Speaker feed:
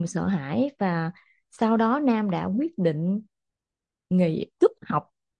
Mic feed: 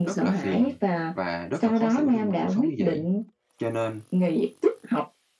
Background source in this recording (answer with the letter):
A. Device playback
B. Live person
B